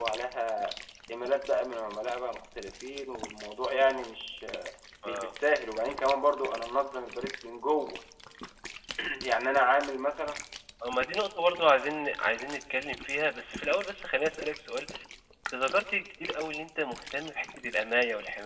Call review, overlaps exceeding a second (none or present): none